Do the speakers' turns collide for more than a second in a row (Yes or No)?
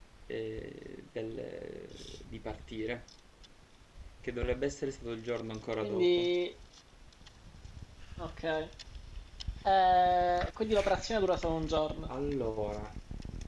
No